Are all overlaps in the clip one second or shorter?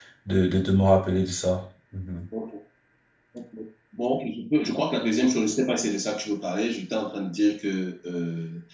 Yes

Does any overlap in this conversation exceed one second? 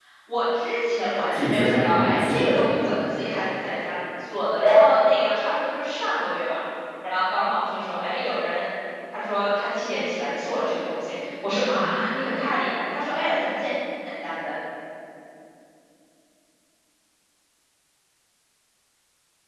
Yes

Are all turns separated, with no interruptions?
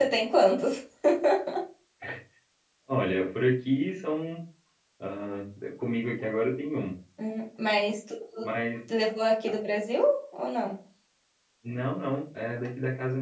Yes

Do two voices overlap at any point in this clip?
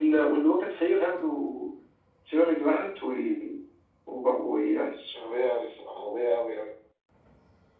No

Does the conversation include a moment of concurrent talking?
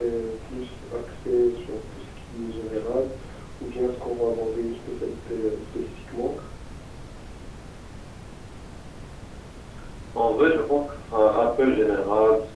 No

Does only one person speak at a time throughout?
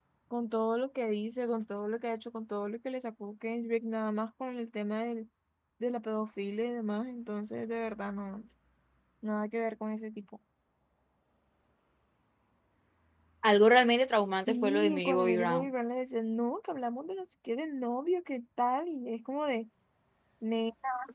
No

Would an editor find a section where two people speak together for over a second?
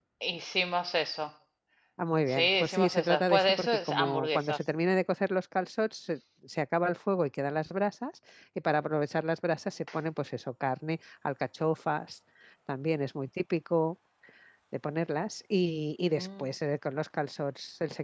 Yes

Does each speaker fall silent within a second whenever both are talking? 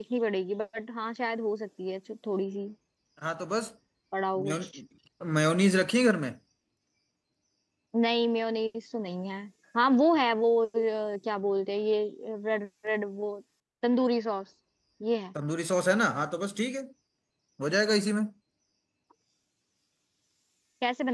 Yes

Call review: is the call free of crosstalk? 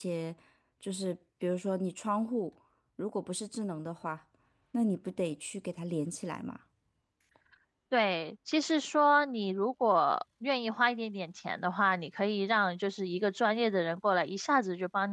Yes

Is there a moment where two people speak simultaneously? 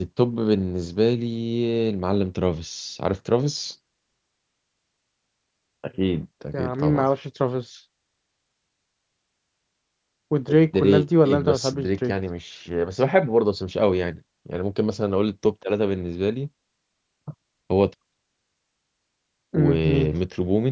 Yes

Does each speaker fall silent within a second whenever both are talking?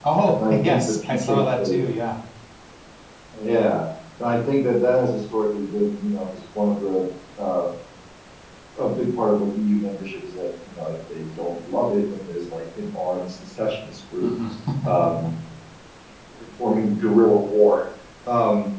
No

